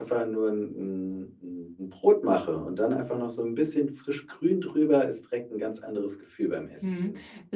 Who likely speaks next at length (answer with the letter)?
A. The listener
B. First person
A